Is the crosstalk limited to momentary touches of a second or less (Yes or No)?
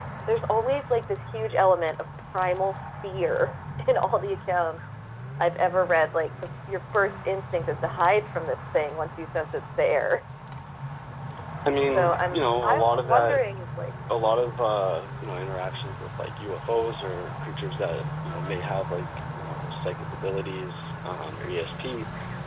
No